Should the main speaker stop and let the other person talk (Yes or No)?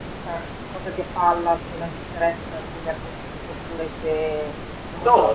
Yes